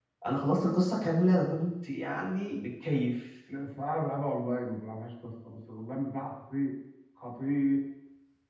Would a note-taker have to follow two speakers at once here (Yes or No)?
No